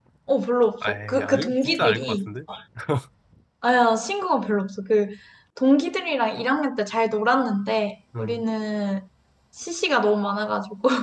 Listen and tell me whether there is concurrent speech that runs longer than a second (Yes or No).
Yes